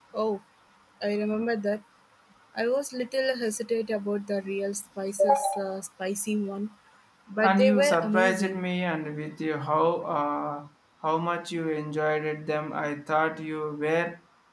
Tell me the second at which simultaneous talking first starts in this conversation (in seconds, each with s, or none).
7.4 s